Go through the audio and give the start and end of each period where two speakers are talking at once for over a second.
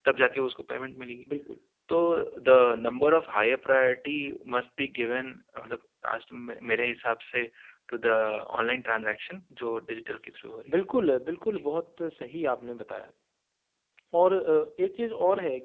none

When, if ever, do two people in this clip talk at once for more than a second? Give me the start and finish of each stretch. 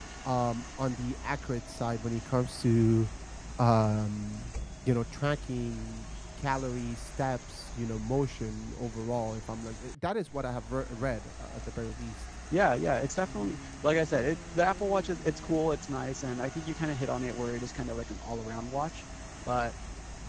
none

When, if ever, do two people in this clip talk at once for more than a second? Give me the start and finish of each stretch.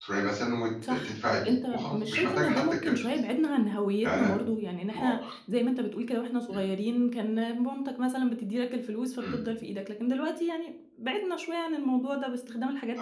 0.9-3.2

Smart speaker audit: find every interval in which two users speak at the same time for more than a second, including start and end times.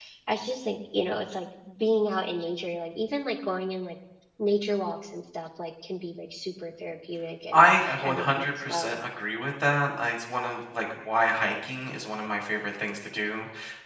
7.5-9.0

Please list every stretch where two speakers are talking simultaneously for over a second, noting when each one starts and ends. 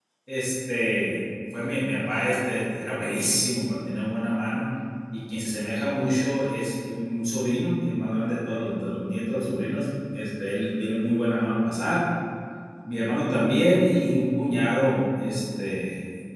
none

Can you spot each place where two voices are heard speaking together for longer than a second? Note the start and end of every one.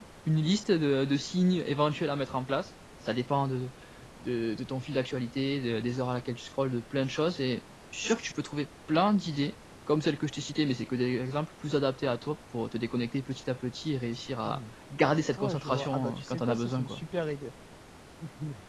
15.4-17.0

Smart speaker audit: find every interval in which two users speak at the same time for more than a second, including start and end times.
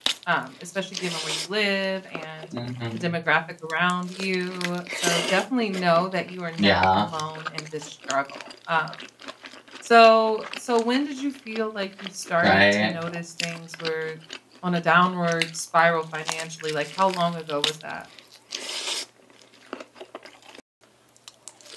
none

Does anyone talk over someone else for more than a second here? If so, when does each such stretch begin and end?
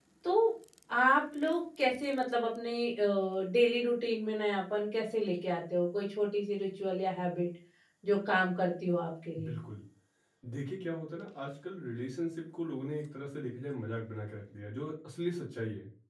none

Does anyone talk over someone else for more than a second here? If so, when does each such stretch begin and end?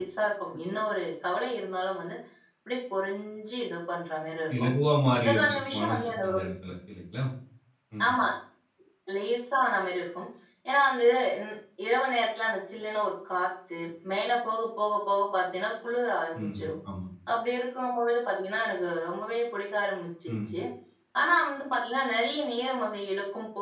5.2-6.5

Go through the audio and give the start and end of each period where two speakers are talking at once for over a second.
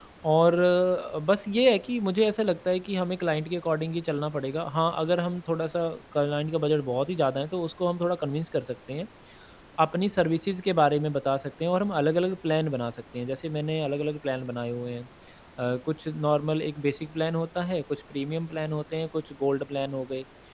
none

